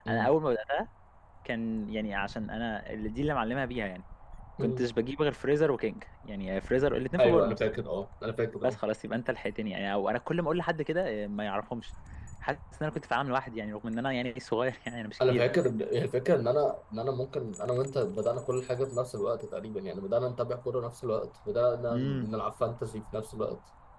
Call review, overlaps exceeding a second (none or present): none